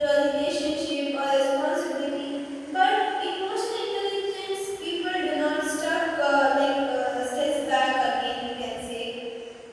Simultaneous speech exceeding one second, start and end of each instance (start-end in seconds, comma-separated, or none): none